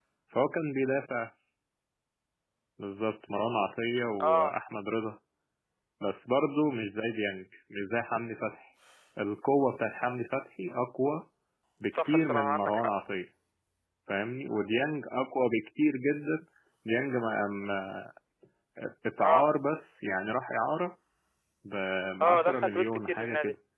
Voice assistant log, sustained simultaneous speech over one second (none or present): present